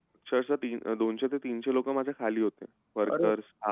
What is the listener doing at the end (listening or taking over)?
listening